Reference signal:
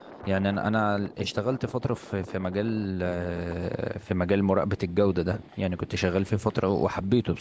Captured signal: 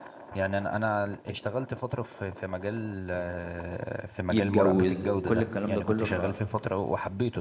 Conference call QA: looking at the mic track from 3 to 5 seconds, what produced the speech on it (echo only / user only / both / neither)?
both